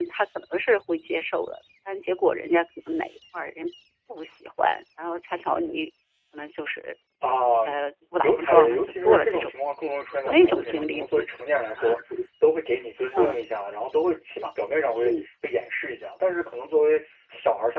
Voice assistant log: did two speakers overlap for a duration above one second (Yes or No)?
Yes